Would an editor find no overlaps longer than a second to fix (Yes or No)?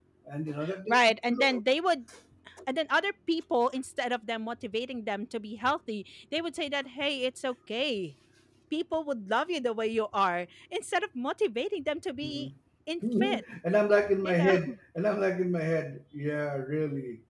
Yes